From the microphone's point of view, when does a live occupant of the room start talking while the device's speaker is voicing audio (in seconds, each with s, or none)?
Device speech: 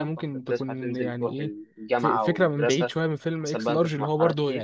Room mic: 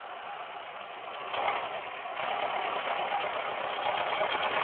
none